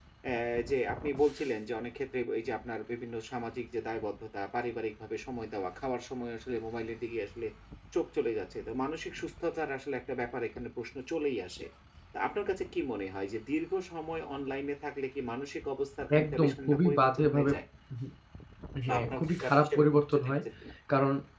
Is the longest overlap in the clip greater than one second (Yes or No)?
Yes